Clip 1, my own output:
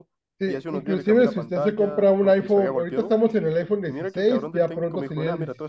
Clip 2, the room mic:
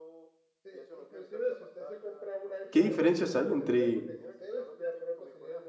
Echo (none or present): present